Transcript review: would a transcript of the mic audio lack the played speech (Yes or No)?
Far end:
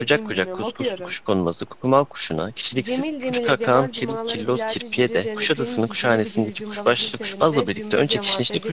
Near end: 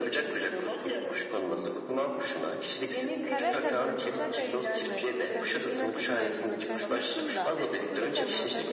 No